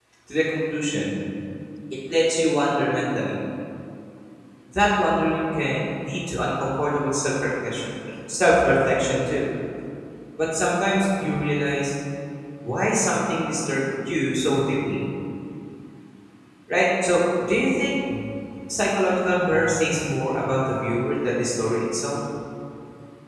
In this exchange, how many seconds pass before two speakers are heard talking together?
none

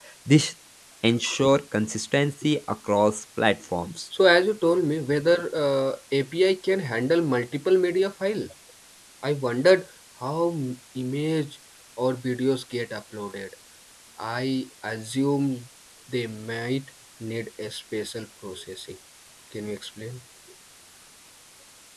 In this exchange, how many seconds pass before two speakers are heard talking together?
none

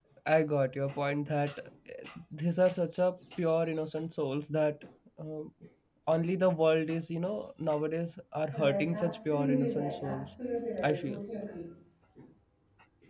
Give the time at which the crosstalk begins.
8.5 s

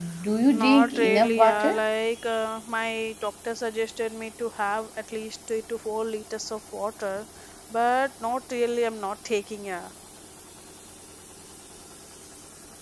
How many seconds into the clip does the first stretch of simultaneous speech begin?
0.5 s

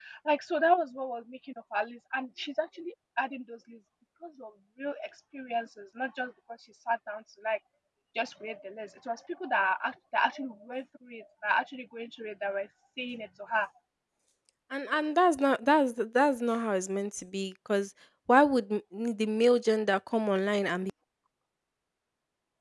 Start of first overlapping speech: none

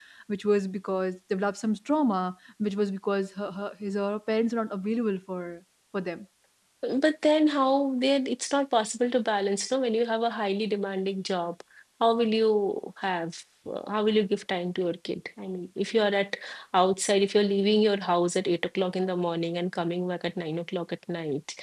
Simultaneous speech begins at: none

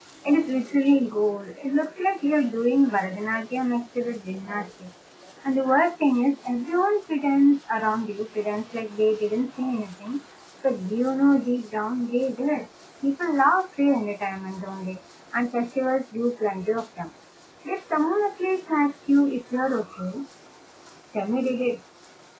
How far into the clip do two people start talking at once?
none

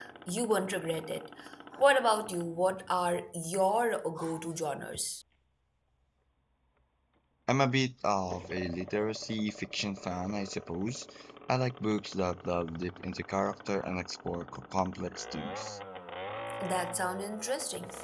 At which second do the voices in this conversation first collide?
none

